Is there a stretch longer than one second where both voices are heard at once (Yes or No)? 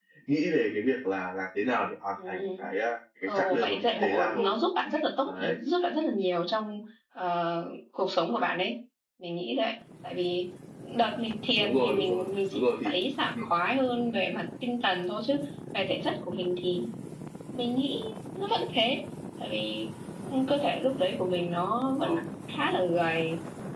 Yes